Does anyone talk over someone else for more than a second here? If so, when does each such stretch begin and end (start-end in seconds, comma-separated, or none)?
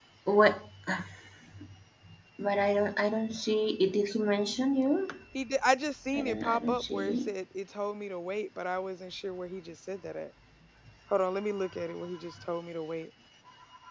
6.1-7.3